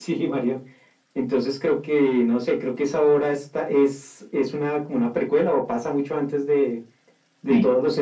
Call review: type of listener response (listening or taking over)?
listening